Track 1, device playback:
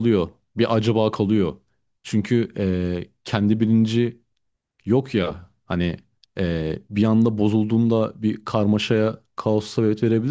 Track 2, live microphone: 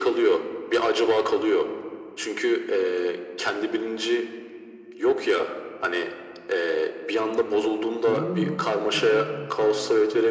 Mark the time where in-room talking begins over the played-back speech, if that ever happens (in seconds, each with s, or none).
8.1 s